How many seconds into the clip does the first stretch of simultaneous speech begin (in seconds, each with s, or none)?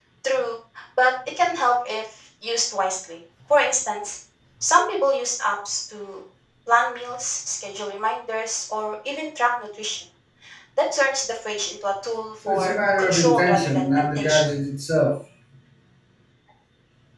12.4 s